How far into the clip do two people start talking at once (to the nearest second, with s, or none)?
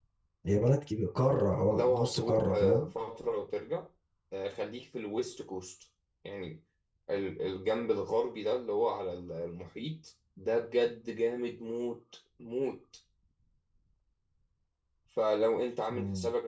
2 s